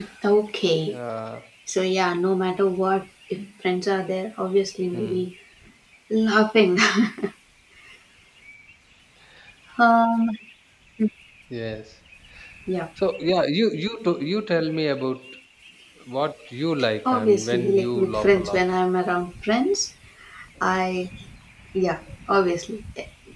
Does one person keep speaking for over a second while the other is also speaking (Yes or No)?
Yes